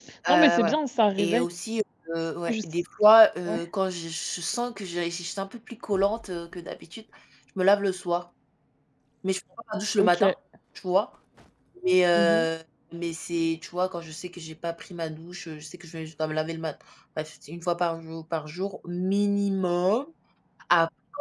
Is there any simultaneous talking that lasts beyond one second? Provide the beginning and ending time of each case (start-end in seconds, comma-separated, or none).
none